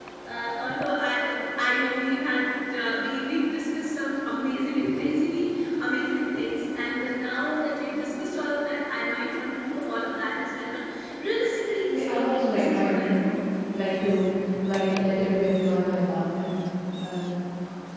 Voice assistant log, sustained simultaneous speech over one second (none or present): present